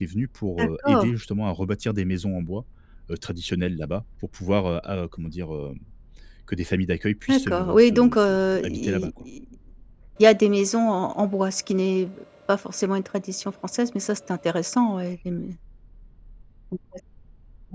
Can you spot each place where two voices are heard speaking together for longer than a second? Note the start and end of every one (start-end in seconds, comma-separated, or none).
7.3-9.1